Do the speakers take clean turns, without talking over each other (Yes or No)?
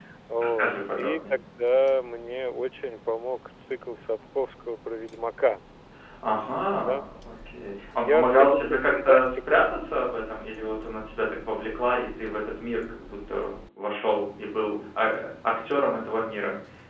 No